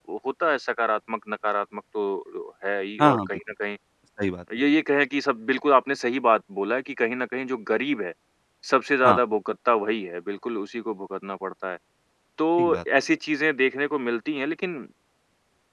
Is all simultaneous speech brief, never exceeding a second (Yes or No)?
Yes